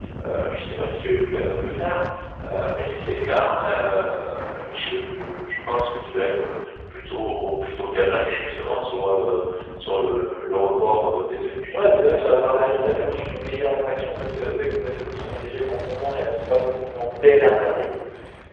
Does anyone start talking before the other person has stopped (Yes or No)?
Yes